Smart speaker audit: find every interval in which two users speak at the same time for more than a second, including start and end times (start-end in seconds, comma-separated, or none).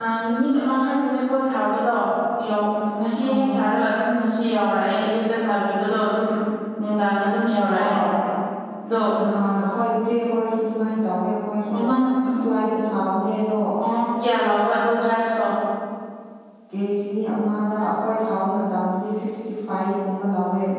none